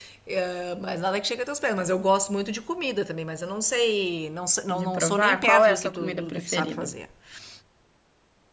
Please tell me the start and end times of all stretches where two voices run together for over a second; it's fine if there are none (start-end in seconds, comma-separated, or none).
4.7-6.9